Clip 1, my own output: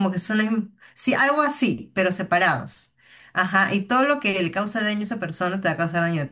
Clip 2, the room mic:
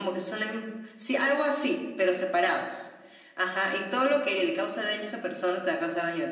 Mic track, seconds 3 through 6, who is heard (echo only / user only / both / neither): echo only